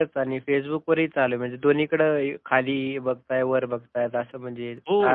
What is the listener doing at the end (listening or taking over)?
taking over